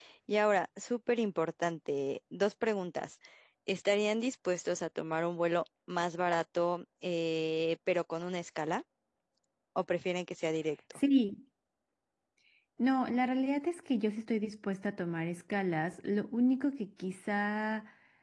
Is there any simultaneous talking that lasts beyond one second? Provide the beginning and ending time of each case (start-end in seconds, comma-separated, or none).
none